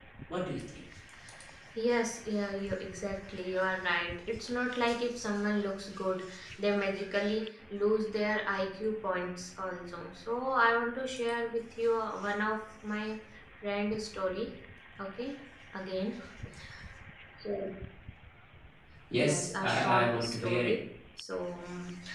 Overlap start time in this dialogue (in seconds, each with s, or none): 19.2 s